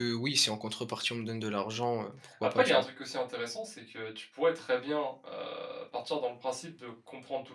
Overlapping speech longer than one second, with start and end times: none

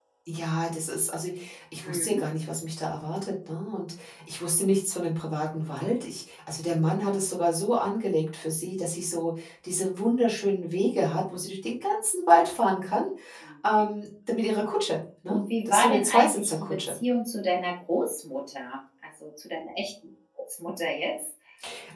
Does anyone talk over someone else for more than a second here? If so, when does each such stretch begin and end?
15.3-16.9

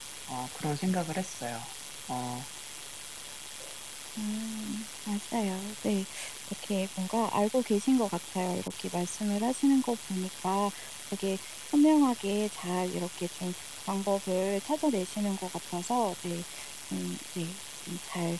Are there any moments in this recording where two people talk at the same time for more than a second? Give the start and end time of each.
none

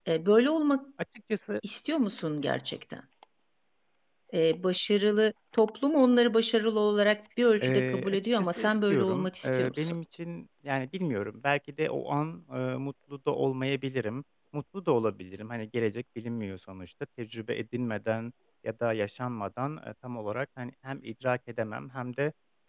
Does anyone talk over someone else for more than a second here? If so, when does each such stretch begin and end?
7.6-9.9

